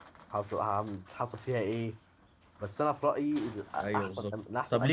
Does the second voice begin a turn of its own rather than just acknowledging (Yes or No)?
Yes